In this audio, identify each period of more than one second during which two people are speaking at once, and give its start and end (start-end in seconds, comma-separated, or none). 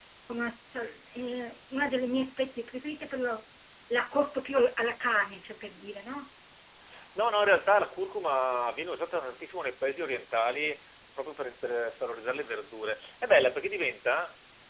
none